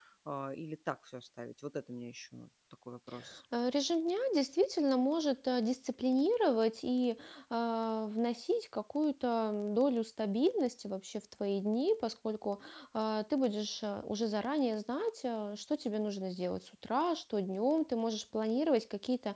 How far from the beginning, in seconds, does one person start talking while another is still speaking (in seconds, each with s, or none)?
none